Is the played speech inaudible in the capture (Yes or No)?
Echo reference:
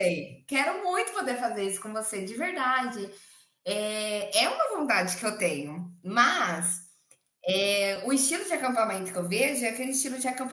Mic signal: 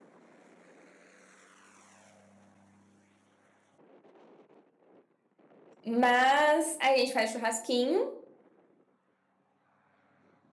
Yes